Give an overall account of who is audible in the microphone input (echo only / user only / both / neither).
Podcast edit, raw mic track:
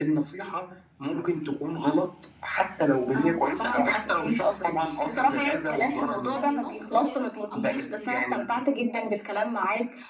both